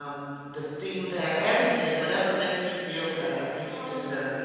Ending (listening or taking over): taking over